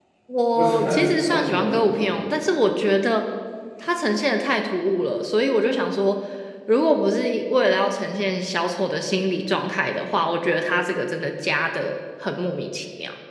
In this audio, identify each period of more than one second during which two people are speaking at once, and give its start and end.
0.5-2.2

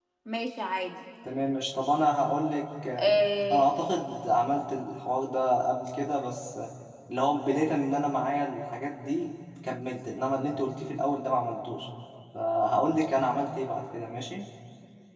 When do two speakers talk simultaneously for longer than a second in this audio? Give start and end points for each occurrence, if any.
none

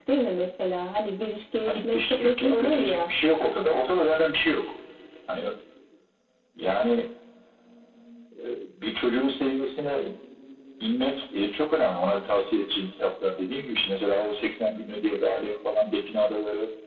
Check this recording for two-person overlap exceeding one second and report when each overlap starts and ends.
1.7-3.1

